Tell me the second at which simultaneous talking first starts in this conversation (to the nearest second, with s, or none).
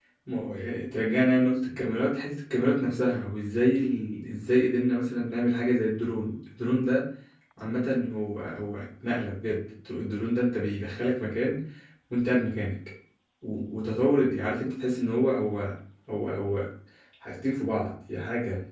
none